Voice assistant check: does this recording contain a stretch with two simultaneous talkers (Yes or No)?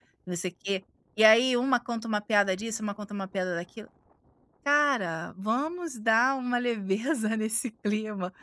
No